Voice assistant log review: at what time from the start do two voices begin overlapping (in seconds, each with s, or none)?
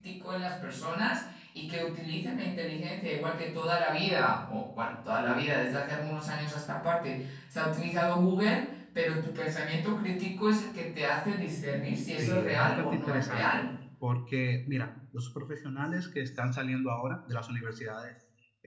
12.2 s